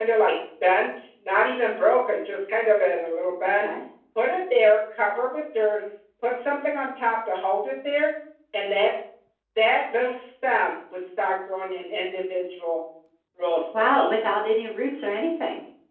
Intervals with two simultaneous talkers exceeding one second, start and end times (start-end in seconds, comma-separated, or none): none